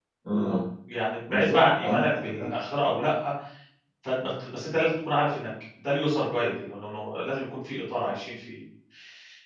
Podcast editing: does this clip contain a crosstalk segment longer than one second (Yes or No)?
Yes